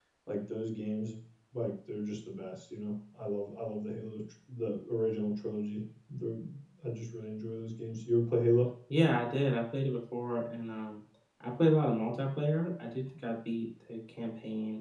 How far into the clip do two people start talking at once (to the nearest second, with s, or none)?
none